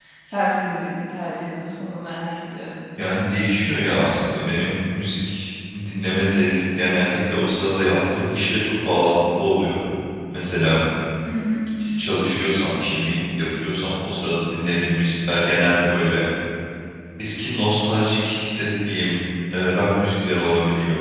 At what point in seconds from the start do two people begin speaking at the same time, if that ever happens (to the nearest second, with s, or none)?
none